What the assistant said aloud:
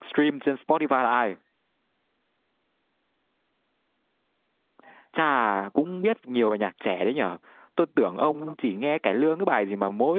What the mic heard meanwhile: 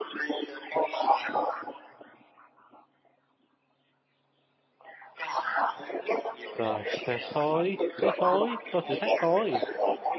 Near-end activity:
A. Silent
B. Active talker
B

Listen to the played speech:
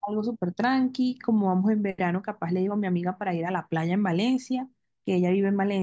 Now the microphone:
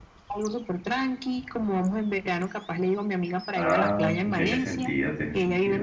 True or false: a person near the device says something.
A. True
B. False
A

